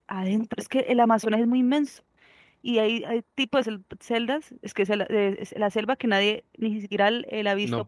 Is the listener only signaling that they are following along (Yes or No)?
No